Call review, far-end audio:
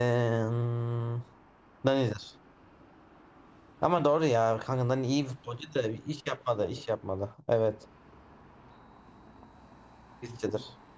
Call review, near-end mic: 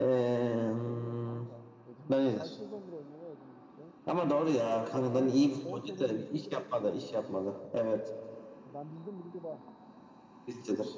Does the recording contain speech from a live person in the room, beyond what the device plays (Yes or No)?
Yes